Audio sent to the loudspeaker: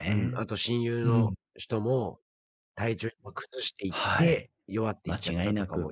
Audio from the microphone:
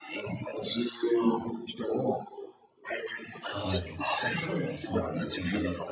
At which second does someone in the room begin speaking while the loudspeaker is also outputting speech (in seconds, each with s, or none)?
3.4 s